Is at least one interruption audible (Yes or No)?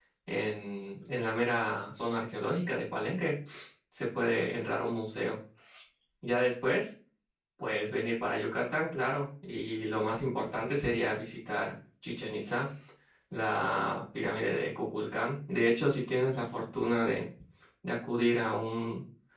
No